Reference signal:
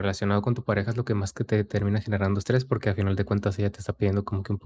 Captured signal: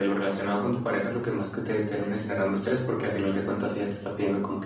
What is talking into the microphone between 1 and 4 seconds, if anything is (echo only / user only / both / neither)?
echo only